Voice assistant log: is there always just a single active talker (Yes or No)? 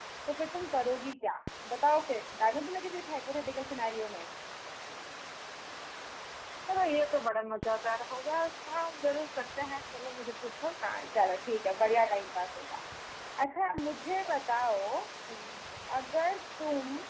Yes